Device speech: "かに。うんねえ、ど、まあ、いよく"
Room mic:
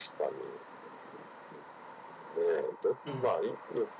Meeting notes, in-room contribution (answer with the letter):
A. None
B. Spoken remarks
B